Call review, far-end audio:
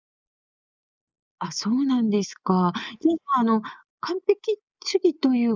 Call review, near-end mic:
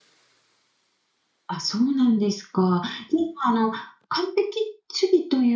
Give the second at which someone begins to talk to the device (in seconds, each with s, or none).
none